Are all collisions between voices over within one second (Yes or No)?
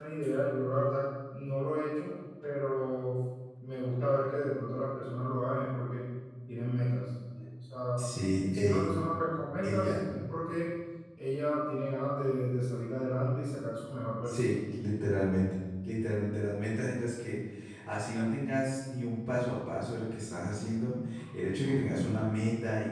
Yes